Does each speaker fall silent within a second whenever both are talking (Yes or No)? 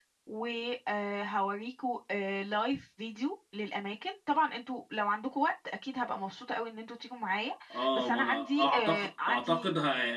No